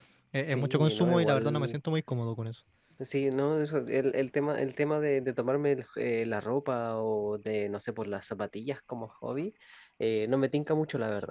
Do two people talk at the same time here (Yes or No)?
Yes